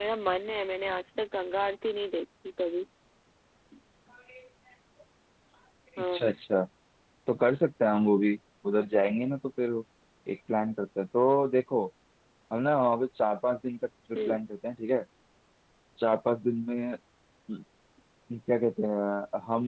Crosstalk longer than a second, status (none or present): none